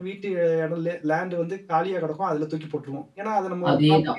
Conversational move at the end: listening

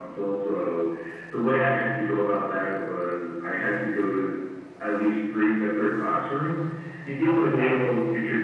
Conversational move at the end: listening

